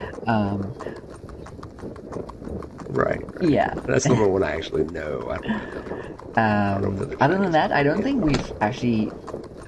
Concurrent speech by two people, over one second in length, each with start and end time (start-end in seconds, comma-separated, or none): 6.7-8.3